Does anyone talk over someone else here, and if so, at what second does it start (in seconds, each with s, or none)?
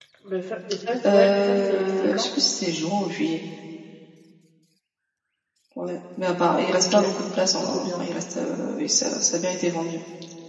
1.1 s